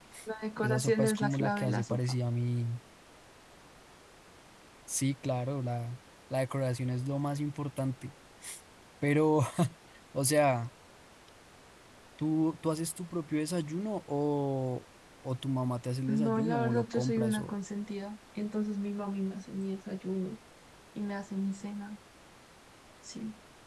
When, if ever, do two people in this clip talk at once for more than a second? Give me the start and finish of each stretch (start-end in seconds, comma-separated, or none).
0.6-2.0, 16.1-17.6